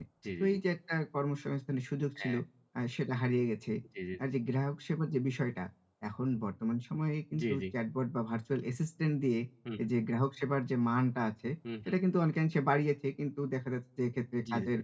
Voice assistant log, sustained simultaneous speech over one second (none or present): none